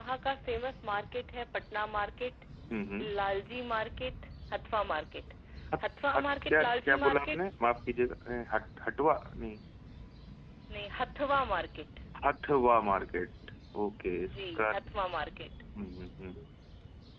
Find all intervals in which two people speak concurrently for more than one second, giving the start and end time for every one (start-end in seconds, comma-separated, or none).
6.0-7.4